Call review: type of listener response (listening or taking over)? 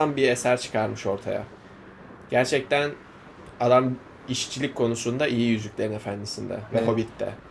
listening